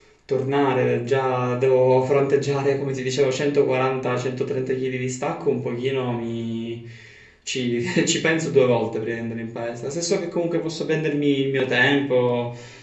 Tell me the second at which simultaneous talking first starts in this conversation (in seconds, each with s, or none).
none